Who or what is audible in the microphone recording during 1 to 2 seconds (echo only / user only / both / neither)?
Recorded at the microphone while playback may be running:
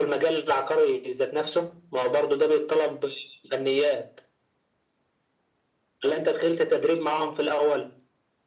echo only